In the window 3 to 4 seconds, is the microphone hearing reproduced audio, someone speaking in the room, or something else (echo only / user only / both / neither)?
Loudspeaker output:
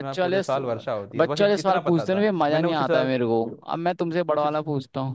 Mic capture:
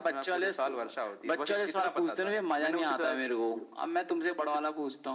echo only